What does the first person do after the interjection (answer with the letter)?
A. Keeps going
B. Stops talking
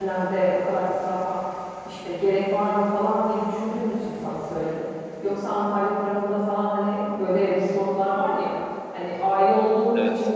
A